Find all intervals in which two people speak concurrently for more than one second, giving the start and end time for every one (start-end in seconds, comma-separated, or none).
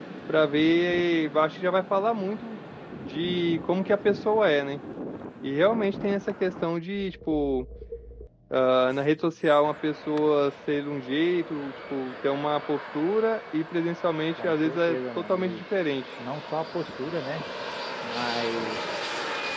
14.4-15.6